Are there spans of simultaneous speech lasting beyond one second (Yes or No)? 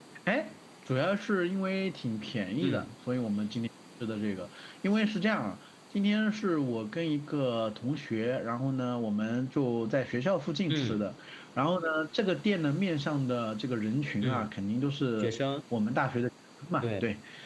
No